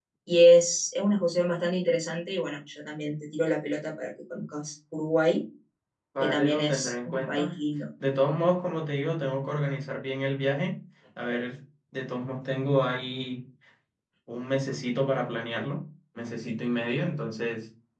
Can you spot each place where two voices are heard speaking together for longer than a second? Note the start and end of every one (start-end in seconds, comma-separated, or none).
6.2-7.6